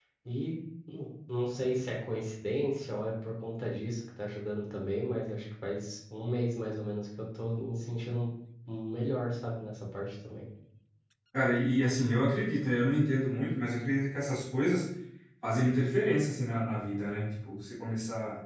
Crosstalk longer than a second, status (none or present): none